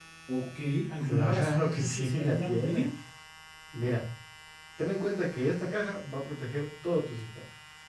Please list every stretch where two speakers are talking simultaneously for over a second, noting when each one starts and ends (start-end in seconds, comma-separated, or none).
1.0-2.9